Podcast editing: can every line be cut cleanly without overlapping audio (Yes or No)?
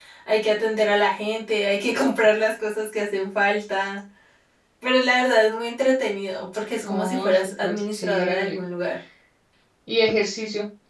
No